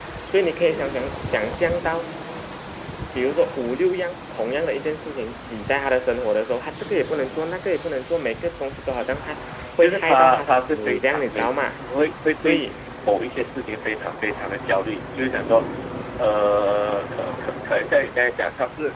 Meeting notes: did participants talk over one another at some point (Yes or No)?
Yes